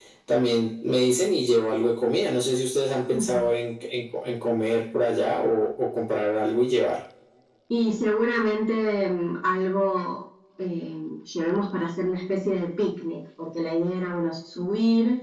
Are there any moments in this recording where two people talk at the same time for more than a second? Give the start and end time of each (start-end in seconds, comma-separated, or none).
none